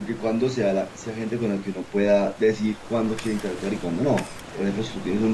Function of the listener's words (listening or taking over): listening